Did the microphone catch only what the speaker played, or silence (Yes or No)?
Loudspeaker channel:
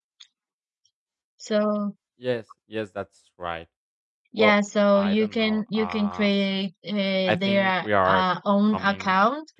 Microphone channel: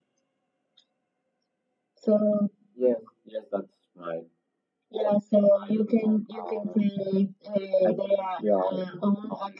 Yes